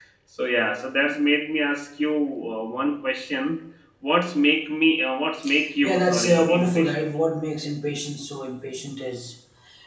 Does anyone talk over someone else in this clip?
Yes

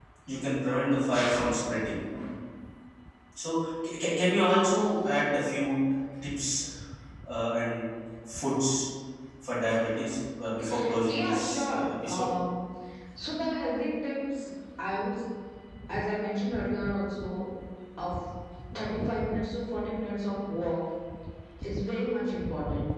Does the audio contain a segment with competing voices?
Yes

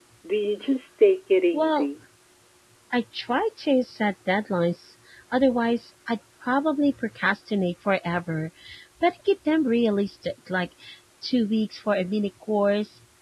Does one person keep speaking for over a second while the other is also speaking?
No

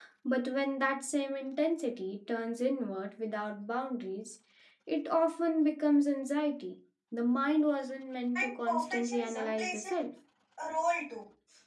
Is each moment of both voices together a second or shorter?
No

